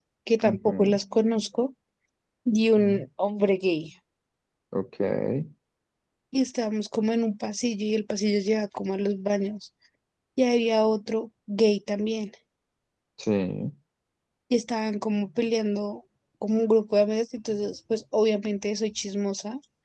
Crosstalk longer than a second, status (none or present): none